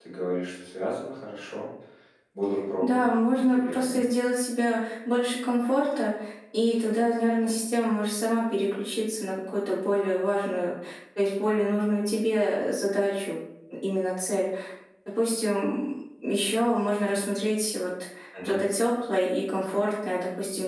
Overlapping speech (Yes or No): Yes